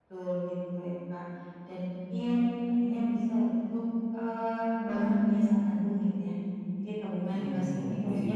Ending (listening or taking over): listening